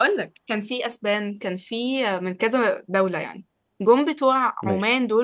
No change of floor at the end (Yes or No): Yes